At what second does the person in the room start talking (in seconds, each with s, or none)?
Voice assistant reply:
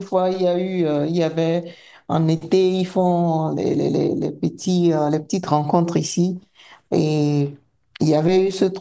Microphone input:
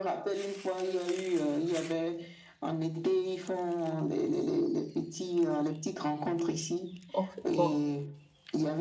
7.1 s